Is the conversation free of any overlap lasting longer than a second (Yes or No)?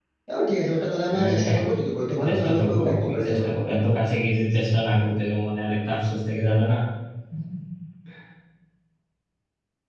No